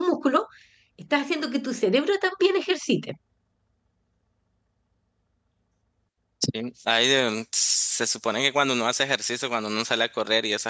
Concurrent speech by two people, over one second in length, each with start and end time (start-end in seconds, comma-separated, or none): none